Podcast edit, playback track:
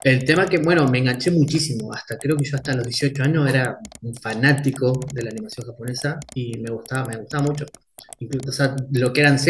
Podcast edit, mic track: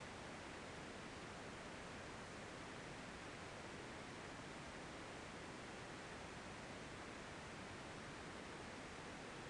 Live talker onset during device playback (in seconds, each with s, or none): none